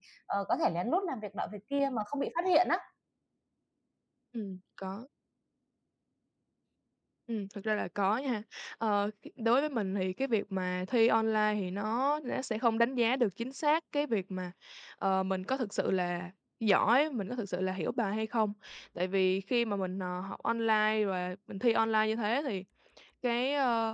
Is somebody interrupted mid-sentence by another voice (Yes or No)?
No